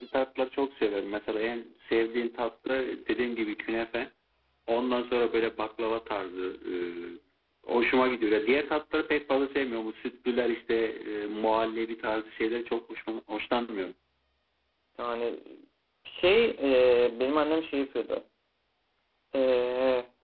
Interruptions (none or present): none